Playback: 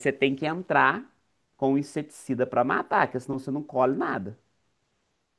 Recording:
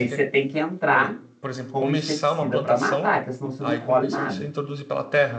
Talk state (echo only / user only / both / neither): both